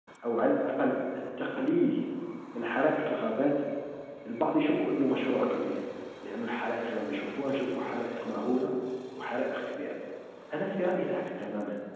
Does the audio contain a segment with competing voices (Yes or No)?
No